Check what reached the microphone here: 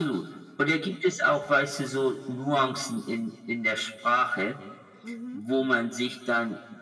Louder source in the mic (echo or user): echo